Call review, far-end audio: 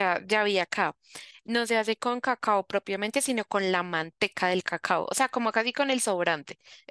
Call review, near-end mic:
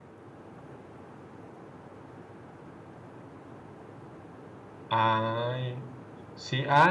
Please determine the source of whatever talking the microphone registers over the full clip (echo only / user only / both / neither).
user only